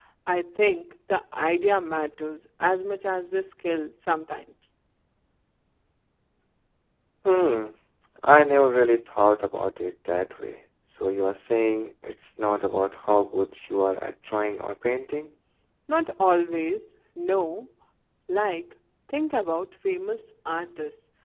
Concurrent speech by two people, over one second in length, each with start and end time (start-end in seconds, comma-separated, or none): none